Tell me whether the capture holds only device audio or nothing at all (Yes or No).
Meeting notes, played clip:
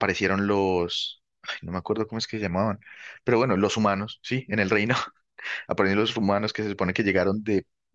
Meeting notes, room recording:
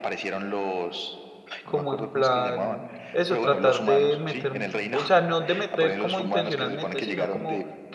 No